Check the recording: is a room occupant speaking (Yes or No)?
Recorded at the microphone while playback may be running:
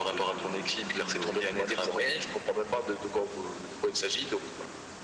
No